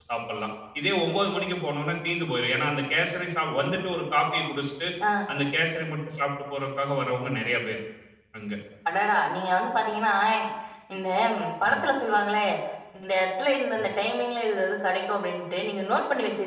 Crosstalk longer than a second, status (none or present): none